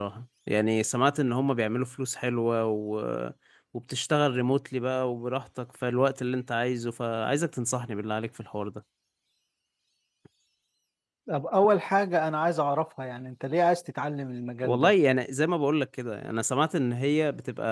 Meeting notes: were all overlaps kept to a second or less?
Yes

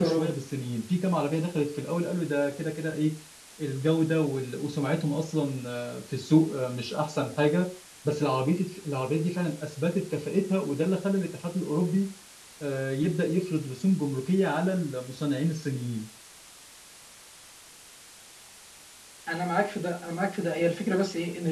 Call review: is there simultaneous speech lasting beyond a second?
No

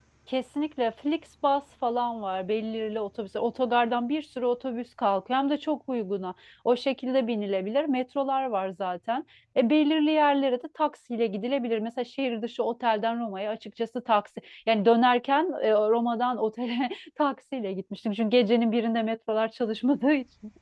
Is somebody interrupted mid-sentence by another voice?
No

